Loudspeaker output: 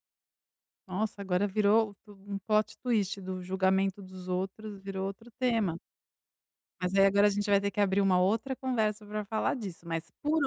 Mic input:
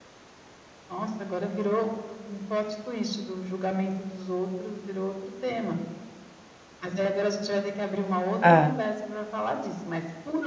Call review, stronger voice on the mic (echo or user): user